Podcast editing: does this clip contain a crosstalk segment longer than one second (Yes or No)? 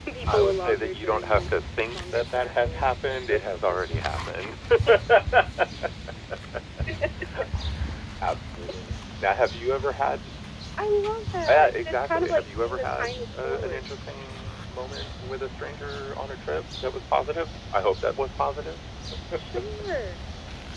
Yes